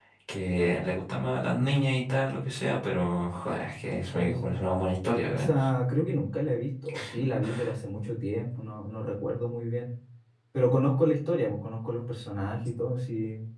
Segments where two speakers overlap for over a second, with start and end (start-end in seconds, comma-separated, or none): none